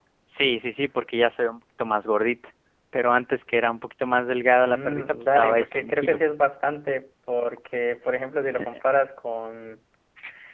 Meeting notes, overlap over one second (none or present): present